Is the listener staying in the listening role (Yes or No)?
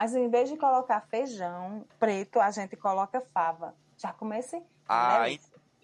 No